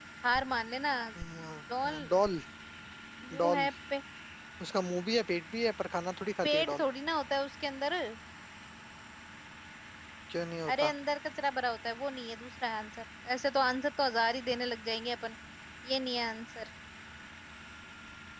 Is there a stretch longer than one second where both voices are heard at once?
No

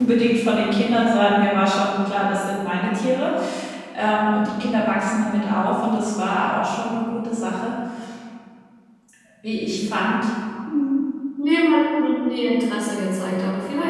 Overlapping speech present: No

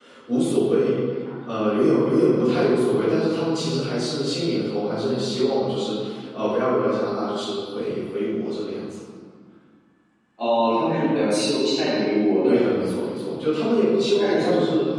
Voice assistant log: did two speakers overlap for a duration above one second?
No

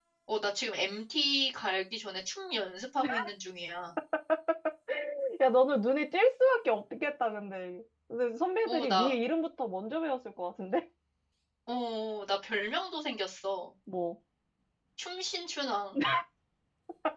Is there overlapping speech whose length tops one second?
No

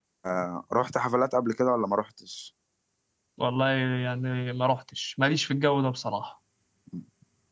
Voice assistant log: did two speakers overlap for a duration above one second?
No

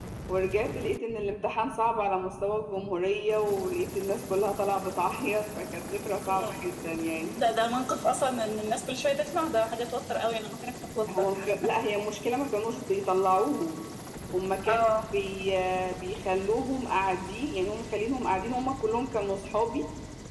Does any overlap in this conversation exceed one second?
No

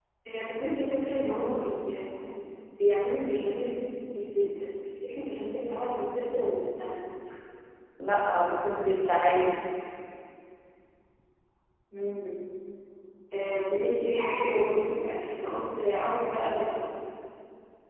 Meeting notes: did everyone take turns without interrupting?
Yes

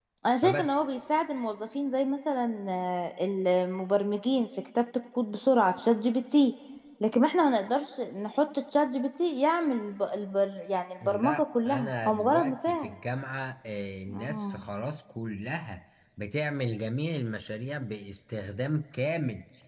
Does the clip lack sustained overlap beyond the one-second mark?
No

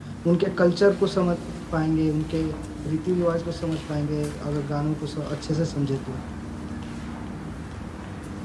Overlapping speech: No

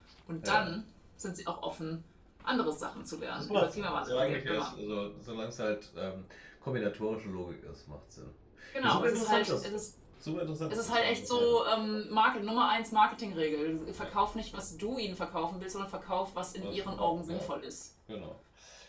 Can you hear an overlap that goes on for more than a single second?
Yes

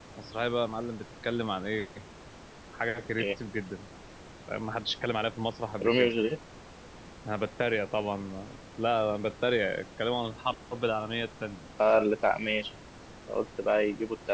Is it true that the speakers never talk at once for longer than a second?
Yes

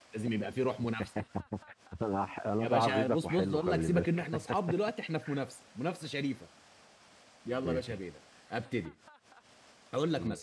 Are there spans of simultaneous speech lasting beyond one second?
Yes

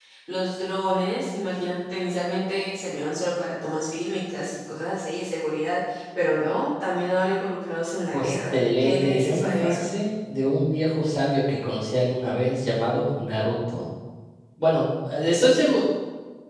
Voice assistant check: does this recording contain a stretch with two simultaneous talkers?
Yes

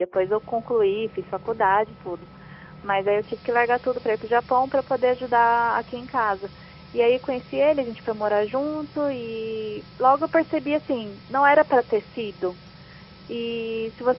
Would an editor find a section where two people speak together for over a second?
No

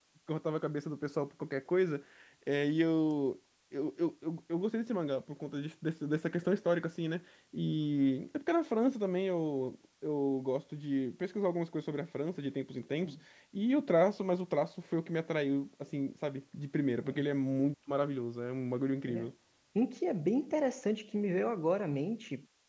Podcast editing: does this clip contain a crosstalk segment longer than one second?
No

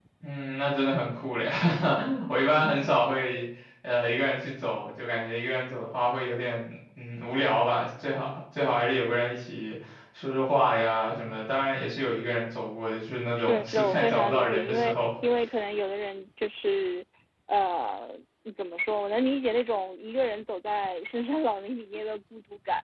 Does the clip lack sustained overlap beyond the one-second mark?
No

